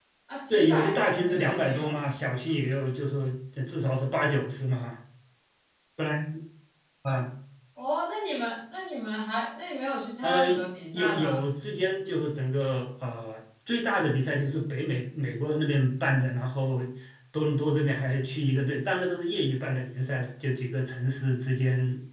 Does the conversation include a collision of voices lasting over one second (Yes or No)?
Yes